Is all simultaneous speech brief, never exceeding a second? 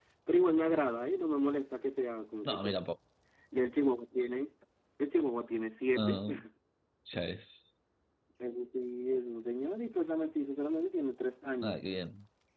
Yes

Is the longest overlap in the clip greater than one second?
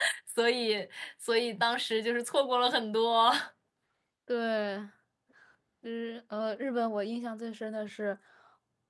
No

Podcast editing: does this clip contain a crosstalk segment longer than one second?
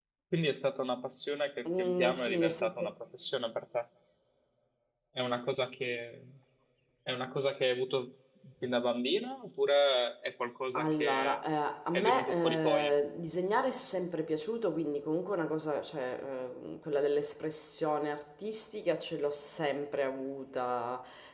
Yes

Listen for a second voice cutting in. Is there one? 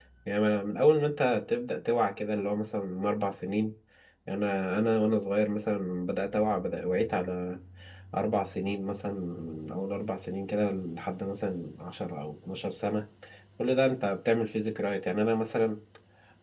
No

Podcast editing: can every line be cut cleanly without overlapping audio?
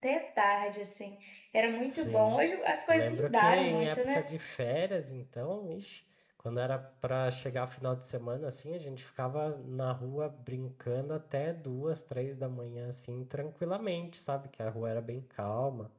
No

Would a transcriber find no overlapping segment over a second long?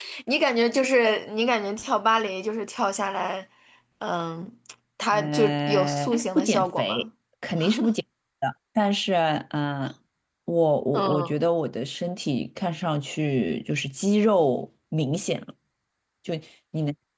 No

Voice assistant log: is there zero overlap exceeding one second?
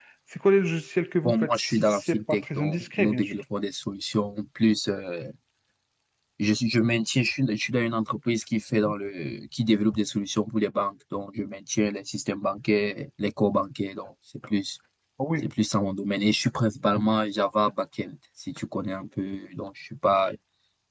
No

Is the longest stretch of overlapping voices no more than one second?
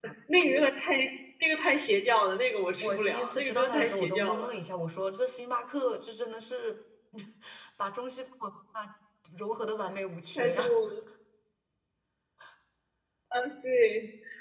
No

